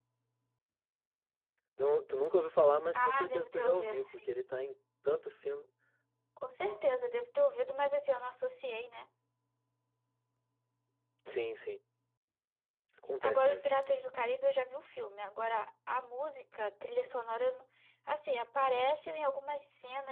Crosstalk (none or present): present